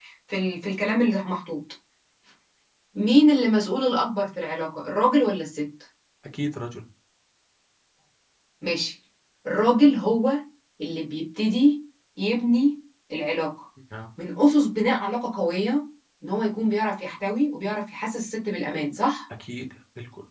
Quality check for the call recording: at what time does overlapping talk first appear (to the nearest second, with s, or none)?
none